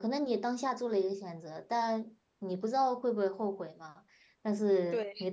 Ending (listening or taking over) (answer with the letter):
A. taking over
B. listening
B